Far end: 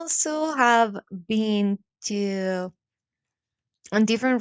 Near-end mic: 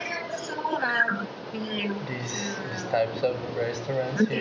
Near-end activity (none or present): present